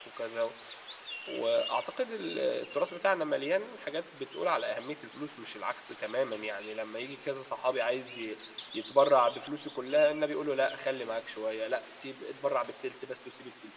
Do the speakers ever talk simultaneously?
No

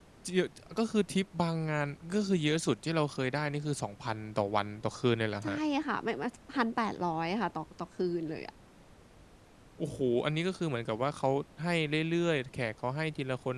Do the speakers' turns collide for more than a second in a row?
No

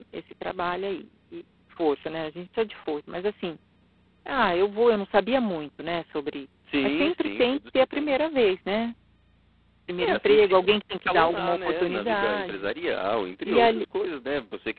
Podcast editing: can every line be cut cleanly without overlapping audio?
No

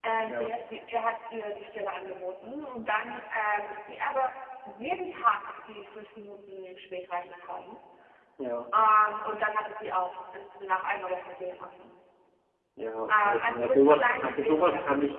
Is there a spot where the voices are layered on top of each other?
Yes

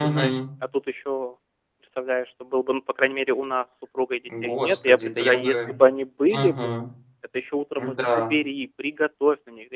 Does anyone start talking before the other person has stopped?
Yes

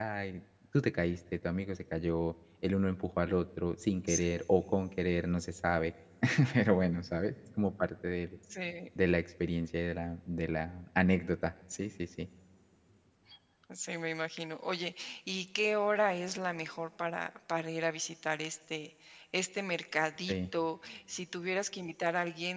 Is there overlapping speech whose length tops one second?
No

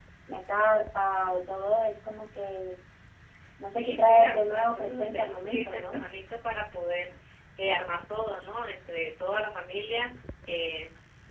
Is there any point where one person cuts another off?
Yes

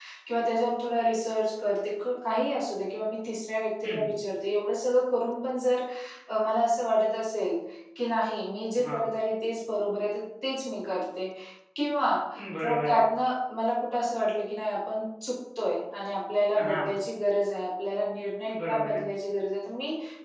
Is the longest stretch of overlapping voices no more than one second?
Yes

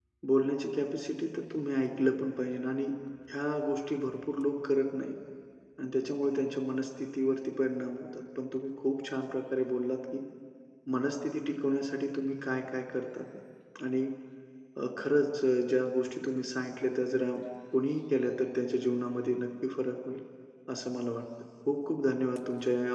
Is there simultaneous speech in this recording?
No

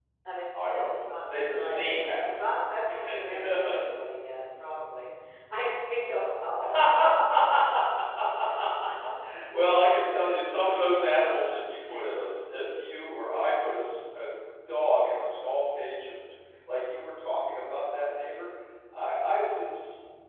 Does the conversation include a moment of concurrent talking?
Yes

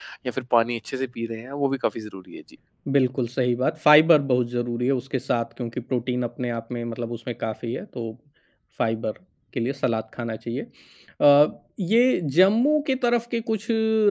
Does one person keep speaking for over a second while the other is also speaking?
No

